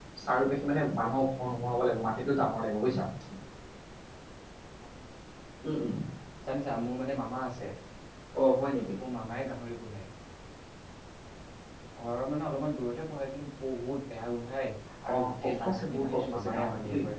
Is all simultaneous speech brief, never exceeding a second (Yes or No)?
No